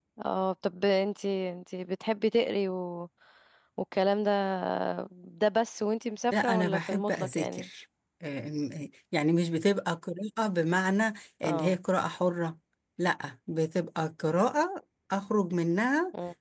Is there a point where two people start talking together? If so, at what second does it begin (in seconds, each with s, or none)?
6.3 s